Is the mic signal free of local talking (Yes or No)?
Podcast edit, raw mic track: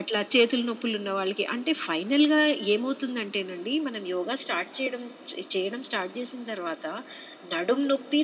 Yes